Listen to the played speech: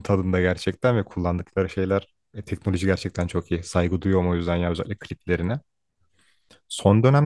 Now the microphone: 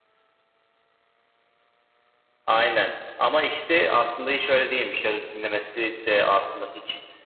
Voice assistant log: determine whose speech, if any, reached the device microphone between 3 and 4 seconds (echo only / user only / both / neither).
user only